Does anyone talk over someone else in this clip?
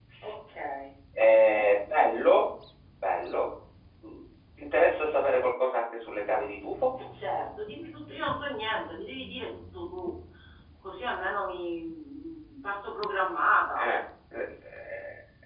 No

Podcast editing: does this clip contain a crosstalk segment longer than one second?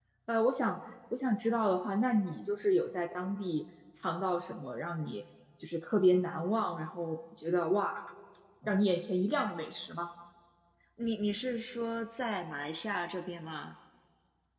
No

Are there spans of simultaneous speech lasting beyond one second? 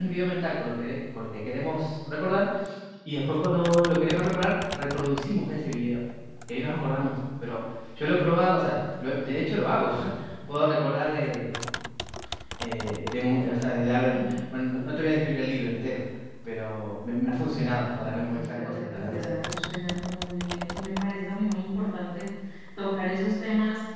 Yes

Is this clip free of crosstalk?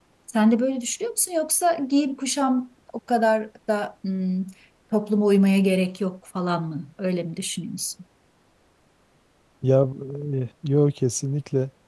Yes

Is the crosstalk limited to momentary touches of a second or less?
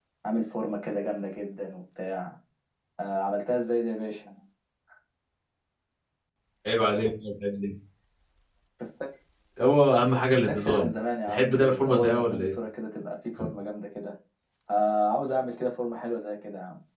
No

